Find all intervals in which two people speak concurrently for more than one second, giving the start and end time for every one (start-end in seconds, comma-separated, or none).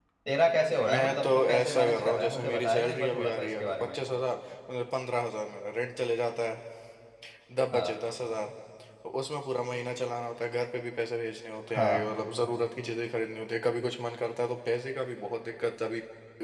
0.9-4.0